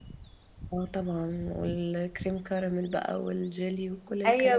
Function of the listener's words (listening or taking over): taking over